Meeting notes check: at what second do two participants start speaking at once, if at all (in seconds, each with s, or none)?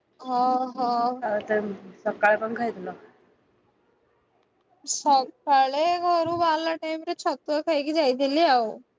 none